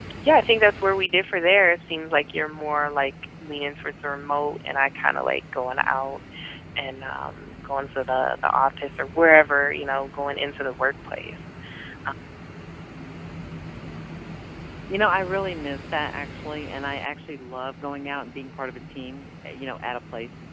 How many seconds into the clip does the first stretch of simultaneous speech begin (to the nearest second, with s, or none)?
none